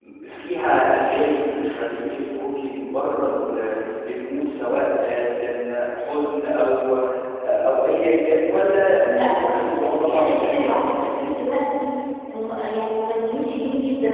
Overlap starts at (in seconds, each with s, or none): 9.0 s